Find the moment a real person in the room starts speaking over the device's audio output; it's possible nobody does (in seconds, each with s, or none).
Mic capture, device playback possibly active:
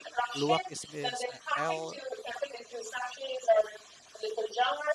0.3 s